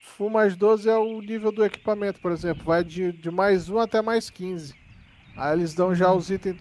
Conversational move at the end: listening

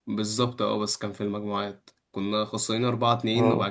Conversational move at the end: listening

